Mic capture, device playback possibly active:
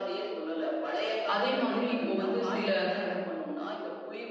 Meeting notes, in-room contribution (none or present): present